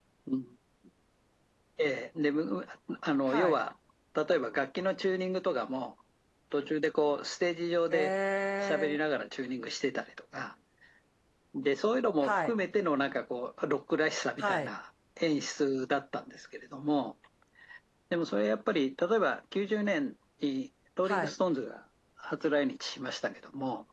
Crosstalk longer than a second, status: none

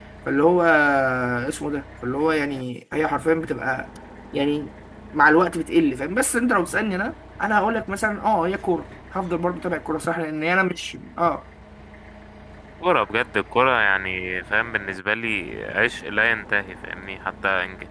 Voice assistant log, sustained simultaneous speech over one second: none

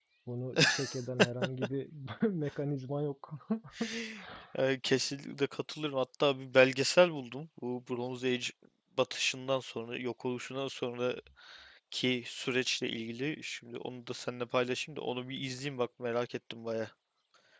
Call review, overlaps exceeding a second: none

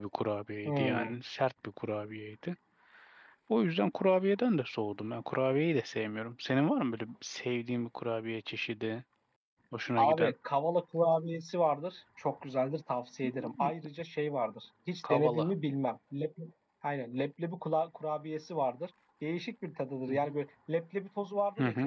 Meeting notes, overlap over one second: none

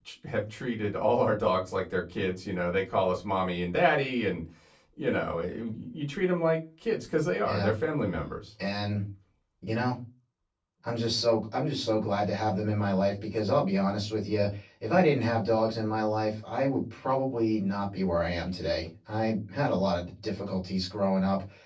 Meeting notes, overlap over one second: none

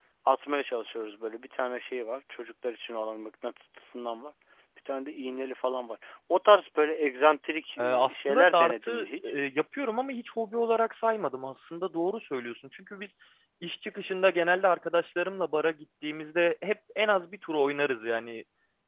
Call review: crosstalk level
present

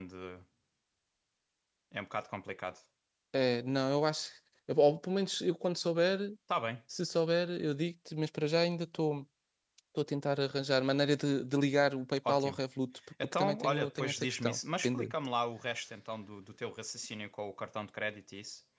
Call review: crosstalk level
present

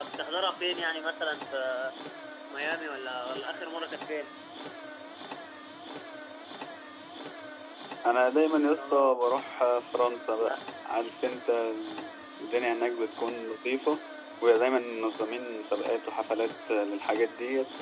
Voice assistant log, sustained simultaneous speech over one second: none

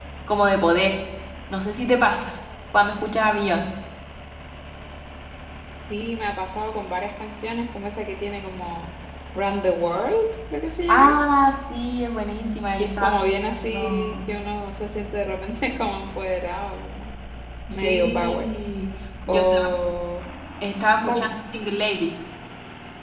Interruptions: present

